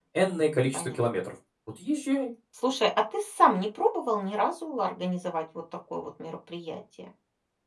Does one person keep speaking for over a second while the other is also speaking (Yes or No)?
No